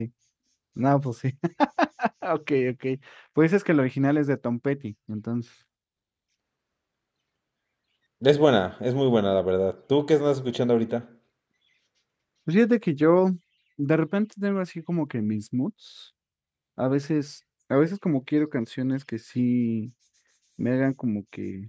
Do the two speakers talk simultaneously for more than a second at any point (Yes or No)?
No